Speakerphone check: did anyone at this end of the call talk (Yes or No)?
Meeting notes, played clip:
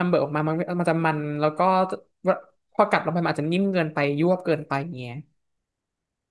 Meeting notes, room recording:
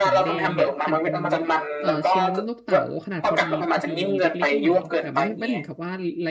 Yes